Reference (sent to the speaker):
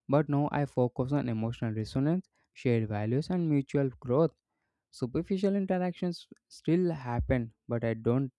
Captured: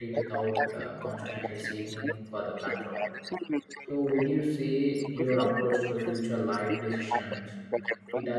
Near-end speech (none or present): present